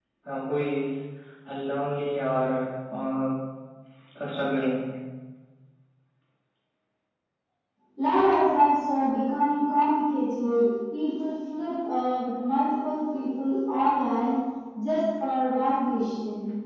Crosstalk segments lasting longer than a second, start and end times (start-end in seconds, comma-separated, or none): none